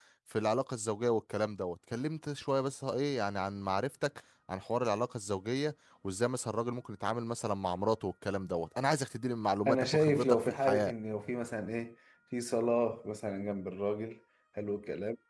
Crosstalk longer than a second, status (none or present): present